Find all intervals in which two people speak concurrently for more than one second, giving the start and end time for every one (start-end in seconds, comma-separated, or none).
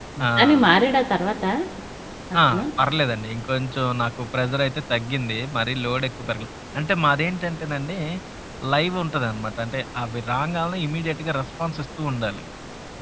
none